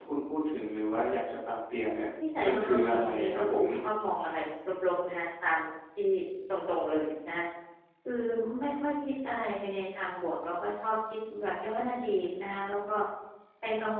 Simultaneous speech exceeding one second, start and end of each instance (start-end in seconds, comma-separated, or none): 2.4-3.6